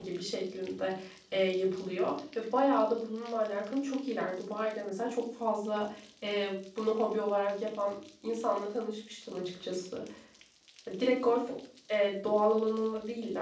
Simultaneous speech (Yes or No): No